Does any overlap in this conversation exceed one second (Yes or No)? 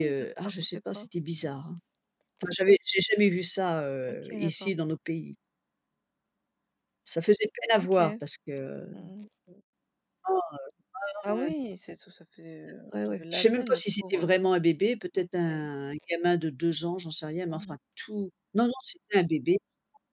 Yes